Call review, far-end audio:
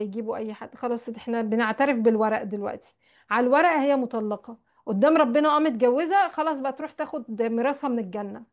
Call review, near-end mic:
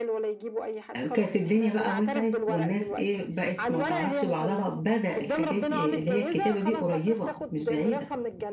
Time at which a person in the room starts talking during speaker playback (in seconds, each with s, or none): 0.9 s